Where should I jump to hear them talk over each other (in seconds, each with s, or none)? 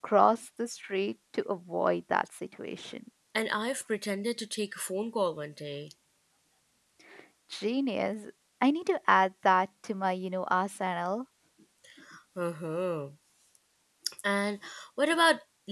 none